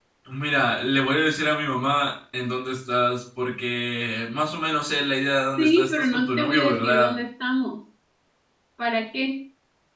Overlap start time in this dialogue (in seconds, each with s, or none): 5.6 s